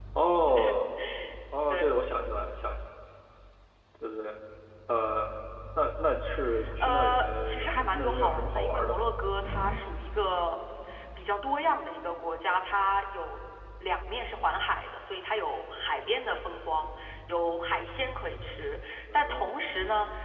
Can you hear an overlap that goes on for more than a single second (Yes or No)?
Yes